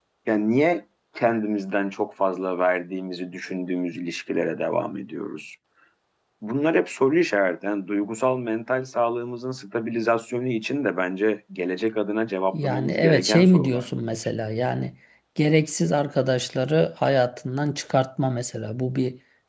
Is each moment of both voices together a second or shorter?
No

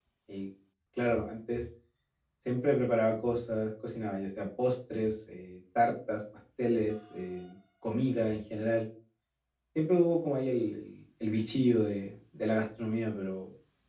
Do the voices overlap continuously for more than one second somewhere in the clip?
No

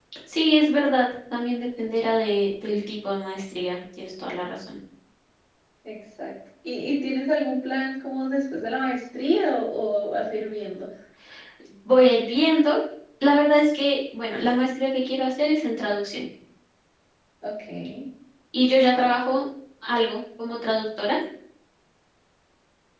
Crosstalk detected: No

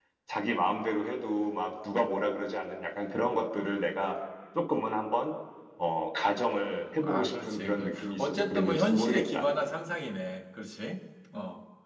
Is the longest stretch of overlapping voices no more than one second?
No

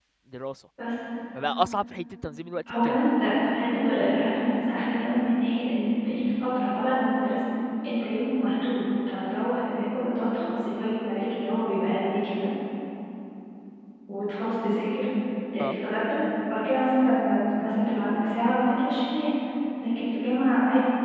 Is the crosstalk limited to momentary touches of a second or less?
Yes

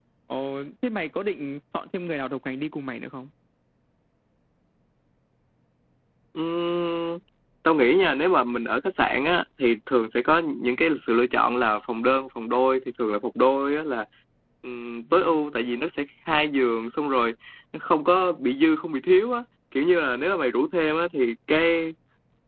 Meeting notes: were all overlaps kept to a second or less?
Yes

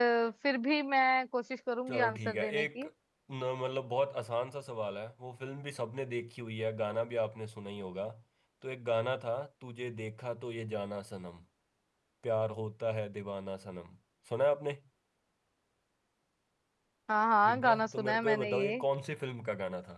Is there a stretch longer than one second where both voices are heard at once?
Yes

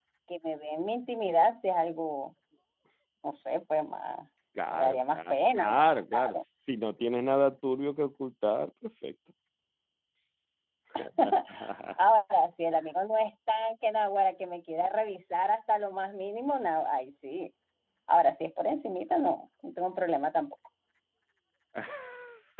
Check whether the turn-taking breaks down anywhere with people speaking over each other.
Yes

